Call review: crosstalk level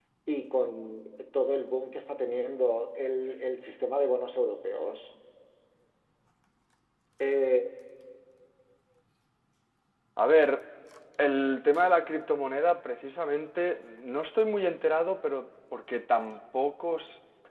none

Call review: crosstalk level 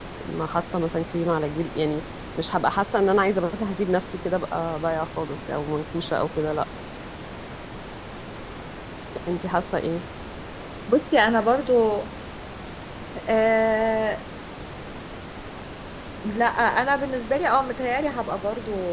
none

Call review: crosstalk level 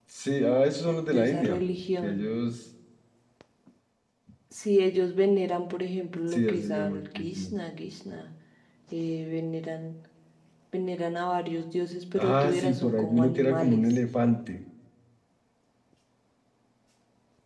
present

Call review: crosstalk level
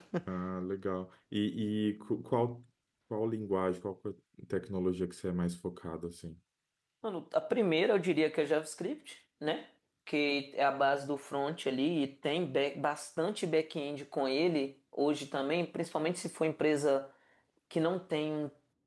none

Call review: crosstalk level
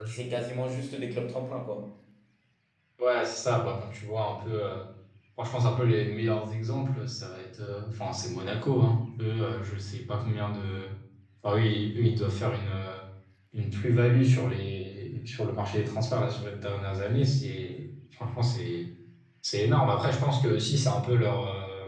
none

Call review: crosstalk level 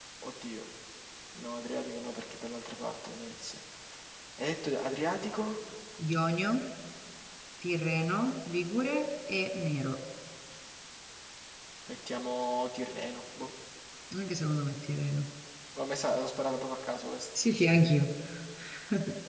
none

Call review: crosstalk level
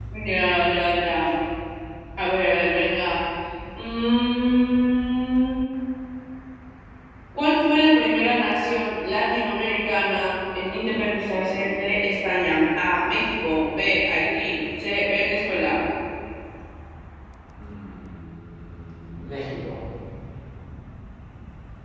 none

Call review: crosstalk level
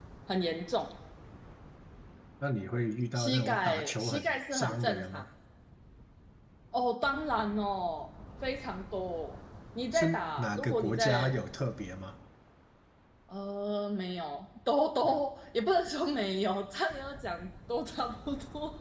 present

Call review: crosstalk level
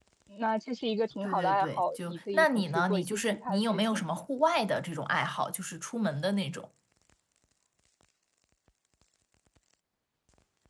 present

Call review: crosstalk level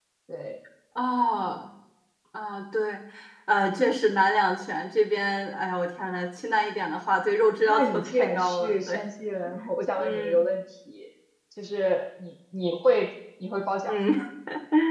present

